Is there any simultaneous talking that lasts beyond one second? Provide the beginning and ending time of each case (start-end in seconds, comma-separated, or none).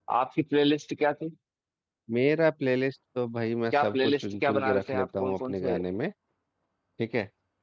3.7-5.8